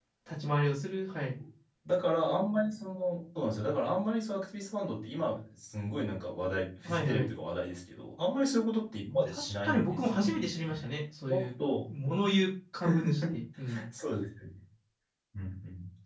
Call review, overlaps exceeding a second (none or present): present